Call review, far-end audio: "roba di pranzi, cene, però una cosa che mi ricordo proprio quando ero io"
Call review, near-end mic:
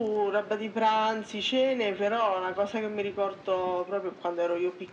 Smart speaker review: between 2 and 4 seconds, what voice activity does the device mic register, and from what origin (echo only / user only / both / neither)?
echo only